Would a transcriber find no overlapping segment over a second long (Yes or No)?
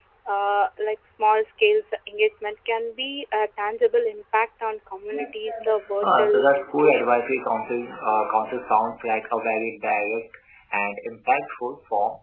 No